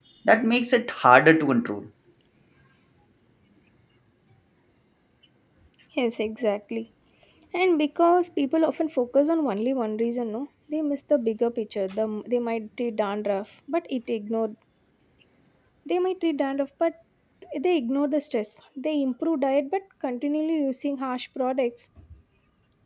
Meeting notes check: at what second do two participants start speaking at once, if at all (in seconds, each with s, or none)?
none